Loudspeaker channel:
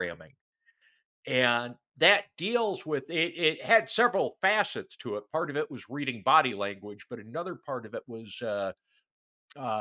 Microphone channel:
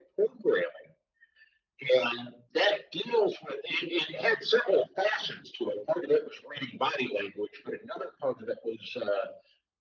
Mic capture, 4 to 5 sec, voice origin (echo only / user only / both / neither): echo only